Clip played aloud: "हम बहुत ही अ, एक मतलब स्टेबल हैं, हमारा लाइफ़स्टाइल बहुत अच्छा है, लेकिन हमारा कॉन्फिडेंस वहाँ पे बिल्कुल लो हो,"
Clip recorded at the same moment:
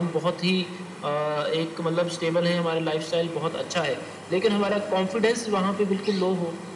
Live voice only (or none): none